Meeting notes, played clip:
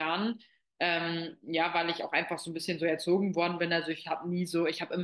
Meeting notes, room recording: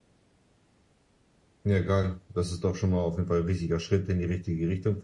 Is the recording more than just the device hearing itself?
Yes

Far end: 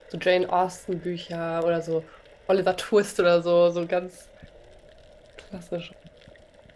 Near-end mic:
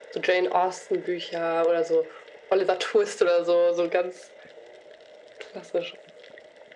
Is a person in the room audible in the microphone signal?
No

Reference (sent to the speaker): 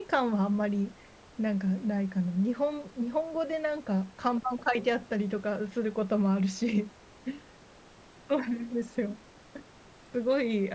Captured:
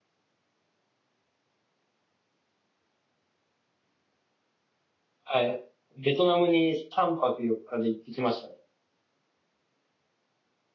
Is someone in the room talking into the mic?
Yes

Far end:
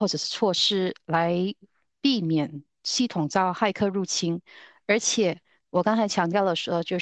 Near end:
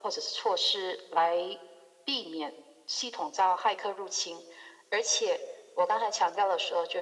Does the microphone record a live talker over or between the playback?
No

